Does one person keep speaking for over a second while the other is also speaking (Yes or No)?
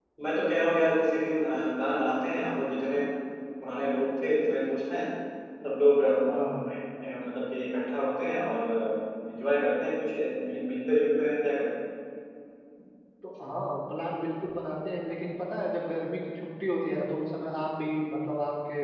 No